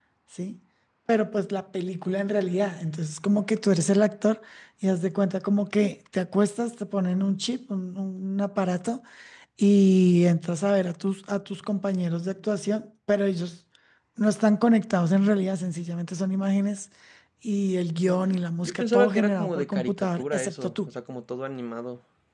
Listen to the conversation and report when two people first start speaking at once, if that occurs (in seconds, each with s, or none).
18.6 s